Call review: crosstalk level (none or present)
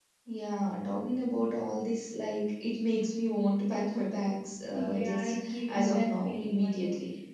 present